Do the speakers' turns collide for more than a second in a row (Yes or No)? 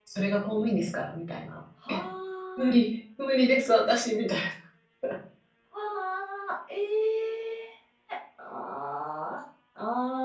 No